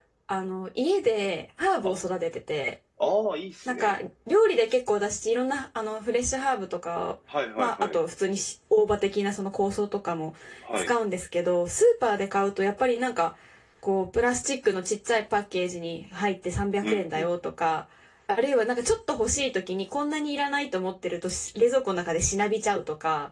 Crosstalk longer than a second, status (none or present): none